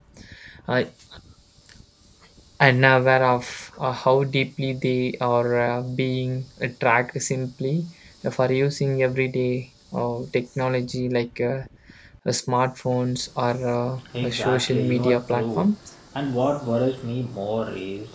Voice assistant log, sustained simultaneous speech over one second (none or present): present